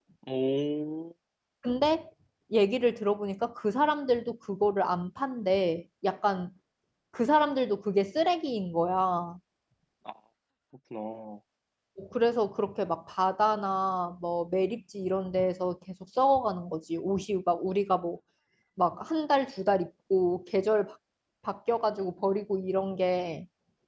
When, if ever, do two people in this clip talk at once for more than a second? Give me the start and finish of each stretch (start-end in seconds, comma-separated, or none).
none